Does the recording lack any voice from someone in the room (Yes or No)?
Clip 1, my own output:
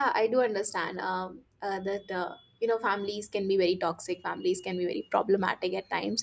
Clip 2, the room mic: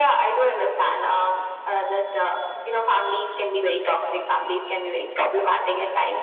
Yes